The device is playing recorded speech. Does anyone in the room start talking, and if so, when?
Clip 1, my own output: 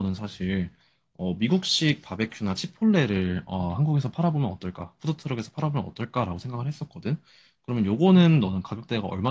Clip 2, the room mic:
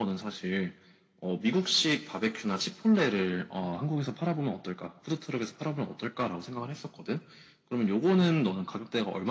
none

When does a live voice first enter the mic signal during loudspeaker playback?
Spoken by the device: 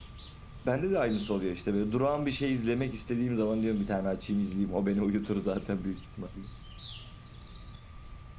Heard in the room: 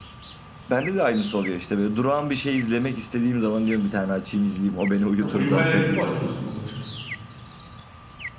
5.2 s

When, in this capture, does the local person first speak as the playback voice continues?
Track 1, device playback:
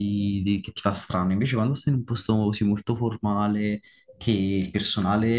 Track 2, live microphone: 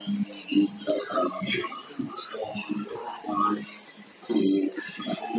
none

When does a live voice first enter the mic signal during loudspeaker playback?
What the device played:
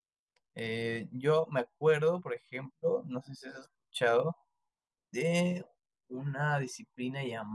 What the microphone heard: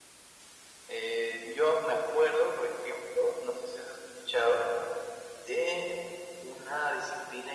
none

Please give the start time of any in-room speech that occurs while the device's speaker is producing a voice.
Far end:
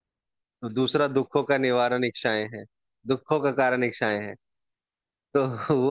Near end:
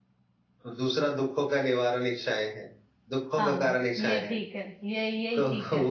3.4 s

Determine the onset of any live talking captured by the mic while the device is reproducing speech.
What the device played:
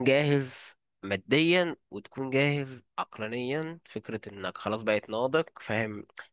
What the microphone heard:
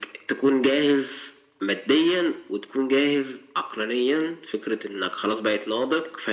none

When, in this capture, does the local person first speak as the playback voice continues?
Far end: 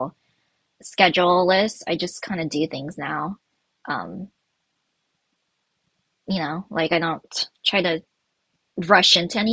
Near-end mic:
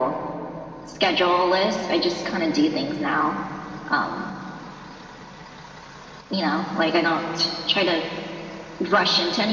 none

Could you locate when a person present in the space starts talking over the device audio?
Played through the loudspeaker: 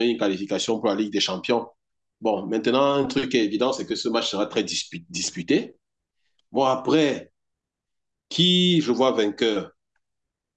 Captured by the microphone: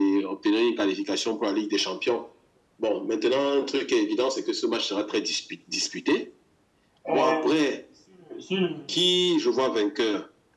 7.1 s

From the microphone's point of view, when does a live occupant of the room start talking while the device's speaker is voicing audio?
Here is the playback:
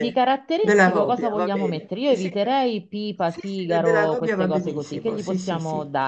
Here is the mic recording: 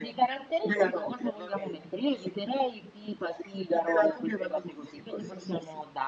none

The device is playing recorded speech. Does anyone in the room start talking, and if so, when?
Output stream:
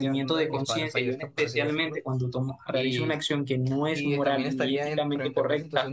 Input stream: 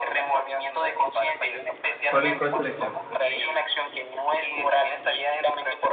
2.1 s

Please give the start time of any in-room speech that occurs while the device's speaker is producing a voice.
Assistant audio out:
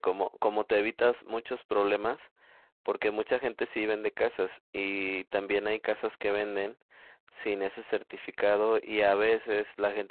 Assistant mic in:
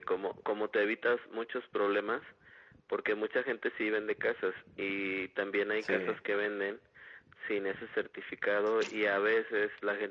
5.8 s

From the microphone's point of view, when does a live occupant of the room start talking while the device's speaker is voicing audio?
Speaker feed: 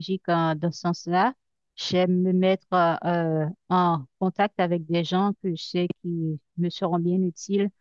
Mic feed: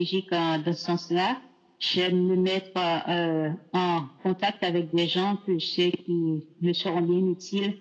none

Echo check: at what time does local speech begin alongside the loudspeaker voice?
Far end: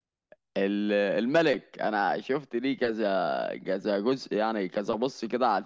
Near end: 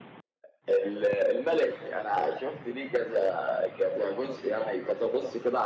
none

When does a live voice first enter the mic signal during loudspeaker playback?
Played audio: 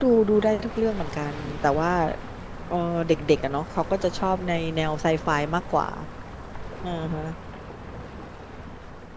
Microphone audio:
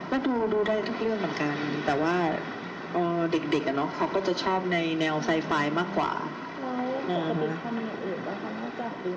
5.2 s

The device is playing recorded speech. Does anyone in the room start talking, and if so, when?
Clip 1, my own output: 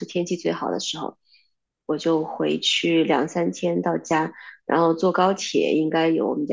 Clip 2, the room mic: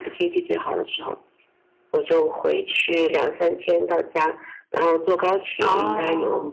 5.6 s

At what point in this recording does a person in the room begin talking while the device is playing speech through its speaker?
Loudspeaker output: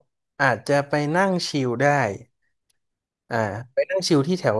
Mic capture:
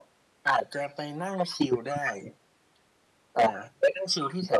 none

